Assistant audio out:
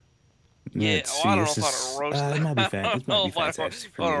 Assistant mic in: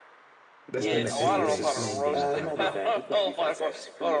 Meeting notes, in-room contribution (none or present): present